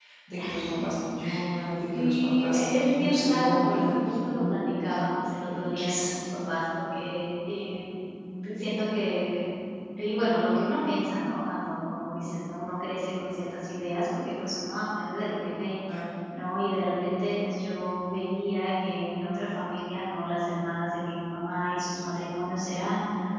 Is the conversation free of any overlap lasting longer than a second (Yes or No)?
No